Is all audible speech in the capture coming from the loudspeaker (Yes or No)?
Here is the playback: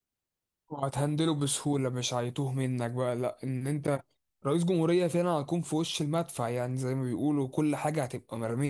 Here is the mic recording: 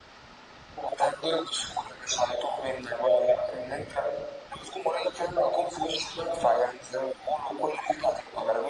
Yes